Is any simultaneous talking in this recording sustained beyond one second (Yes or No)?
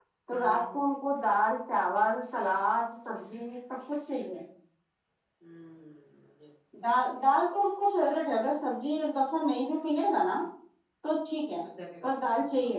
No